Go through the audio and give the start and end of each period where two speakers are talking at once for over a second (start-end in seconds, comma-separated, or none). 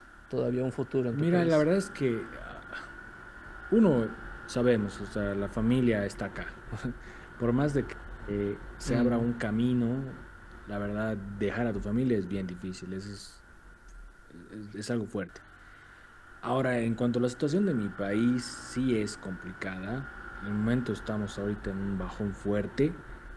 none